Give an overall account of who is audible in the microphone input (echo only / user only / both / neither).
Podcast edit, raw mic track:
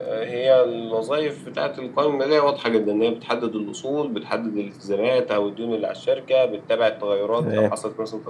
both